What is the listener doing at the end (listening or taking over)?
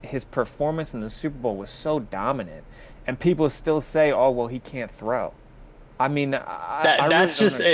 taking over